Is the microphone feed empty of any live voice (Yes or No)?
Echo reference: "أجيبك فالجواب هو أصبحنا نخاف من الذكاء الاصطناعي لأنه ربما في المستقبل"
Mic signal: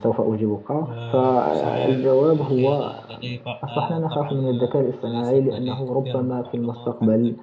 No